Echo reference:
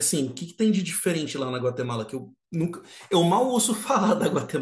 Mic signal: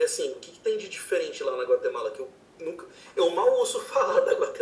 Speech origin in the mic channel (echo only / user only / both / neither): echo only